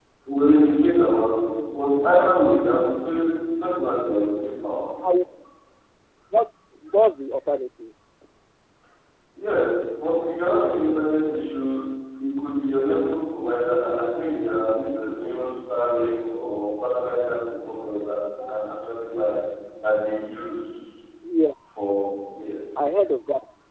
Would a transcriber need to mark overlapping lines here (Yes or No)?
No